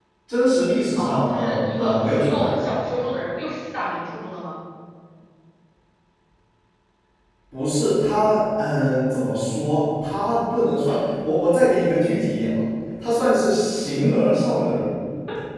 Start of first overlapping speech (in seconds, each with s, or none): 1.0 s